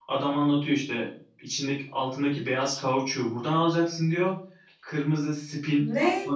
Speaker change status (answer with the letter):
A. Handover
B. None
B